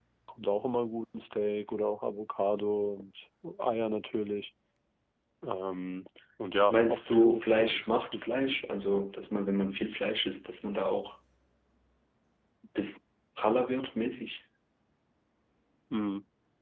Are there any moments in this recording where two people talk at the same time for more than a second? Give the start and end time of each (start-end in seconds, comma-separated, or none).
6.7-8.3